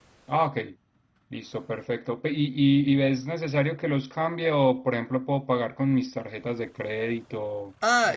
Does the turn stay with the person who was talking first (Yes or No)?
No